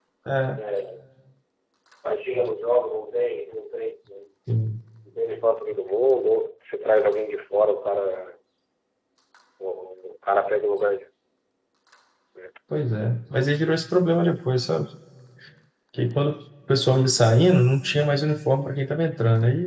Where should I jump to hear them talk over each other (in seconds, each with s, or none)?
none